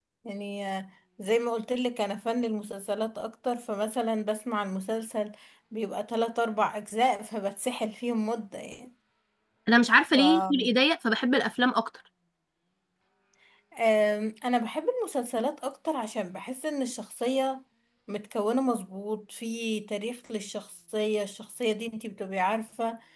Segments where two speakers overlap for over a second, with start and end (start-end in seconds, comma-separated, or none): none